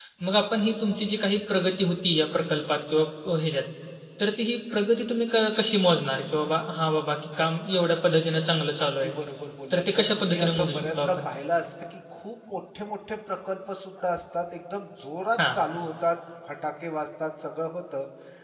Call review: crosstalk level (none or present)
present